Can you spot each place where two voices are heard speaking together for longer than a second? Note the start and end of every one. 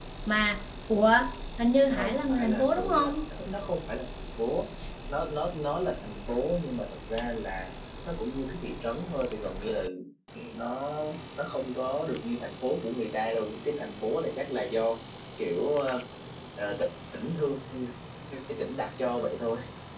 1.9-3.1

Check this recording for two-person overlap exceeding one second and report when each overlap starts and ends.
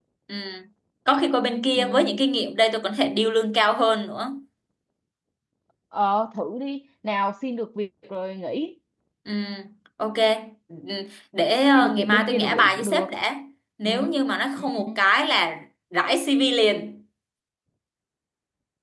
11.8-13.1

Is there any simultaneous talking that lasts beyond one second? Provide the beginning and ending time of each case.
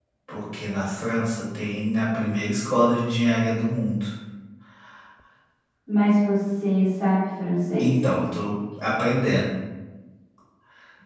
none

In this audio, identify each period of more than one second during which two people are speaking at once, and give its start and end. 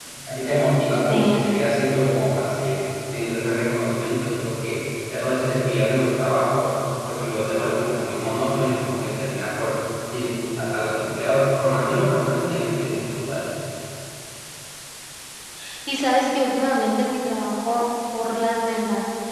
none

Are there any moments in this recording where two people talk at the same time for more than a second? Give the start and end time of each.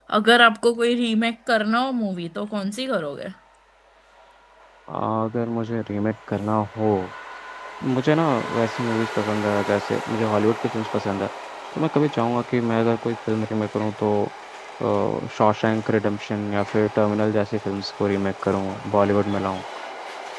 none

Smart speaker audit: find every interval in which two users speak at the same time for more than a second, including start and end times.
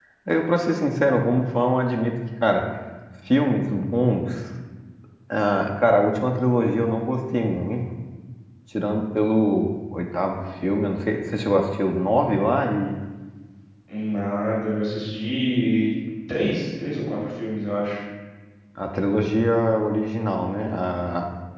none

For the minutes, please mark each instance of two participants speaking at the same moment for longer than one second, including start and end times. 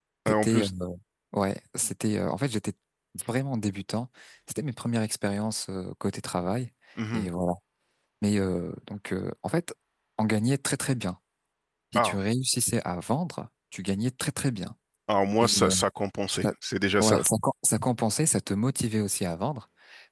none

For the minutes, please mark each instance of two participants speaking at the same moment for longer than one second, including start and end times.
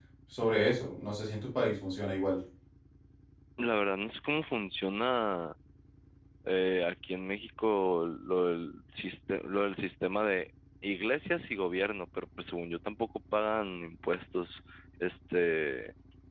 none

